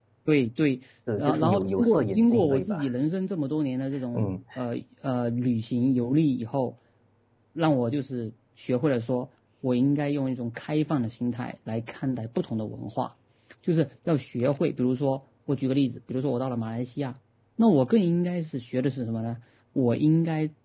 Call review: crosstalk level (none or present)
present